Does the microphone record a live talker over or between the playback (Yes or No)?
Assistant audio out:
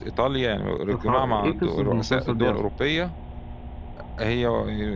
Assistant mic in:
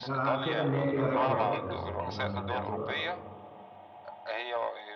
Yes